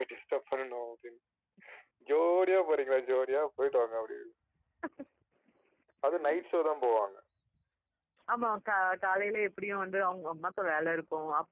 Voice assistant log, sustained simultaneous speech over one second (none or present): none